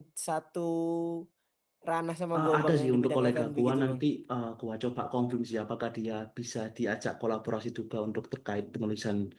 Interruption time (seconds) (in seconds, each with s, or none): 2.4 s